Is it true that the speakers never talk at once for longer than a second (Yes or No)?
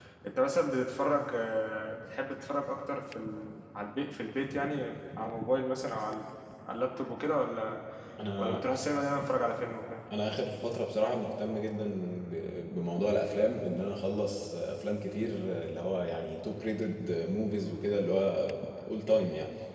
Yes